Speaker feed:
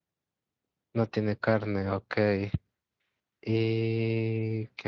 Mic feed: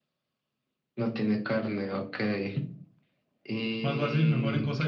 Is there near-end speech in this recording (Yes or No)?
Yes